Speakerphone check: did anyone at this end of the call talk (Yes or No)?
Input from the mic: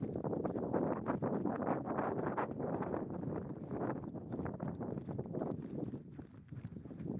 No